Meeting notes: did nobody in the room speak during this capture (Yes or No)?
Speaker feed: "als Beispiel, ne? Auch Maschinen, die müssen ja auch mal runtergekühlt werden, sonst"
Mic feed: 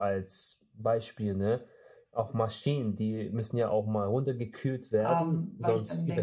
No